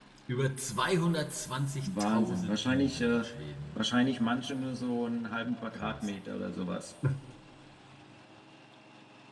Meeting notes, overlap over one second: present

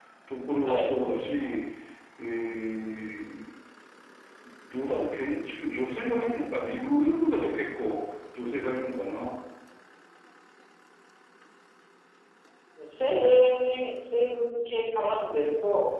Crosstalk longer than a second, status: none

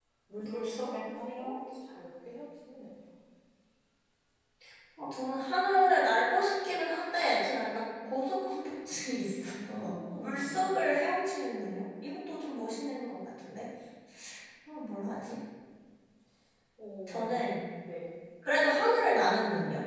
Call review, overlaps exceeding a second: present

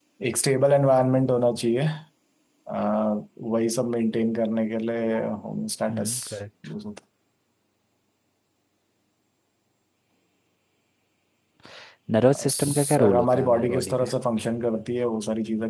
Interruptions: present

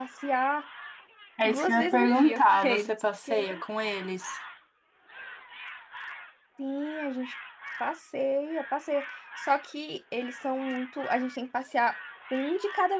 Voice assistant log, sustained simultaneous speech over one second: present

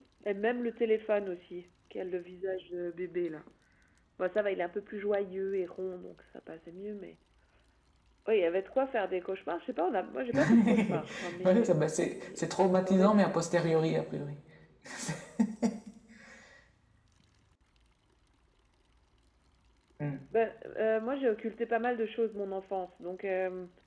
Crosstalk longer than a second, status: present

